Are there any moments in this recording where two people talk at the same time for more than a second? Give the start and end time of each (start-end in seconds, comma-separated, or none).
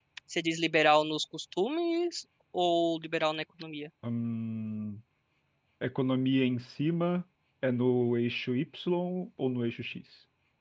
none